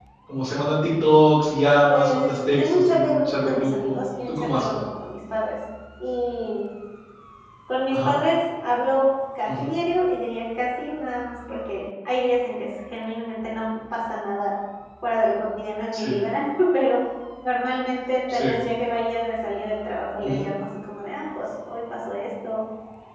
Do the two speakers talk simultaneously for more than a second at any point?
Yes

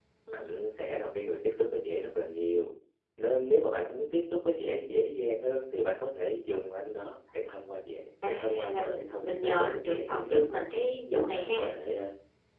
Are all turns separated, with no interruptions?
No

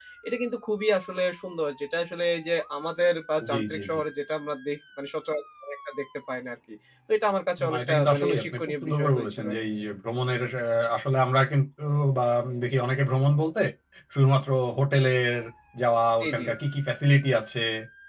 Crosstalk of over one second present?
Yes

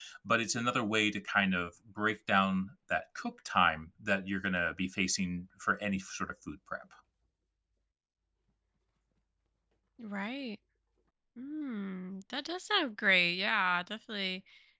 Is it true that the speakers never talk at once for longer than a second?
Yes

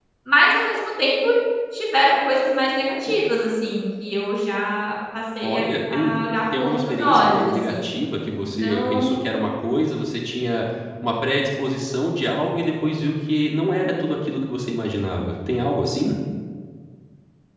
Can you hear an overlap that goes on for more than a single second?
Yes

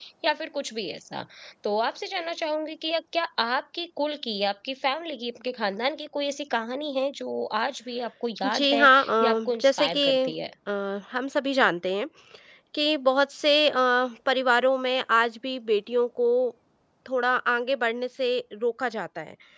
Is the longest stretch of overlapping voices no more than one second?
No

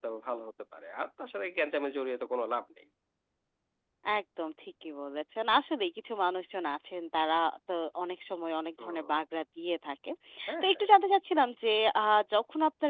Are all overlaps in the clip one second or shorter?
Yes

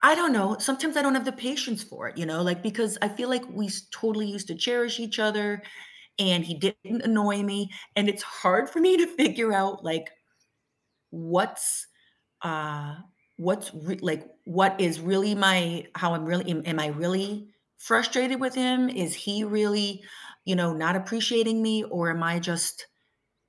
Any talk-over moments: No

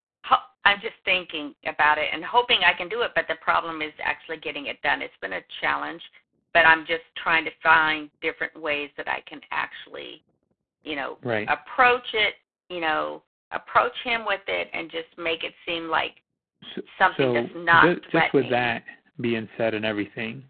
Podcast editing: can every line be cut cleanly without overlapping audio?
No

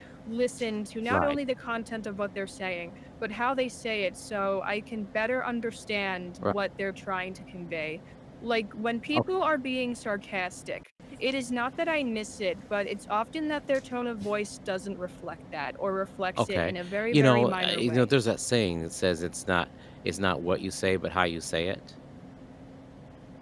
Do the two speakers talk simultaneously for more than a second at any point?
Yes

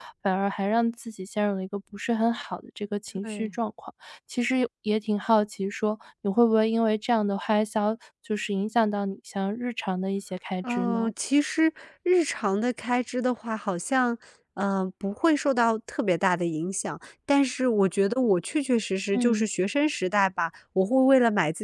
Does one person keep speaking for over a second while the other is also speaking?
No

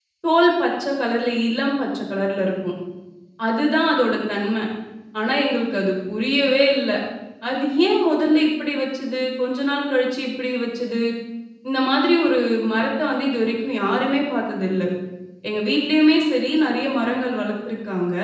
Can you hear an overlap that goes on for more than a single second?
No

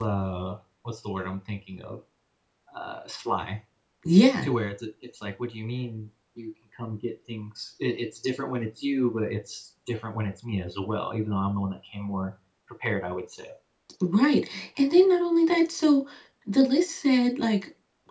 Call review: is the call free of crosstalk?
Yes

